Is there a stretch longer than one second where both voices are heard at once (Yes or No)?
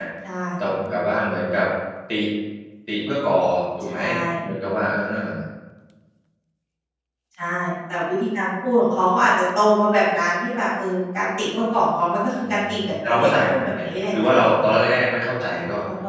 Yes